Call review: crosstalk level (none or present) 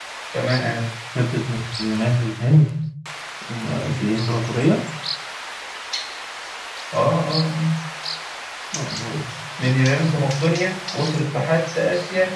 none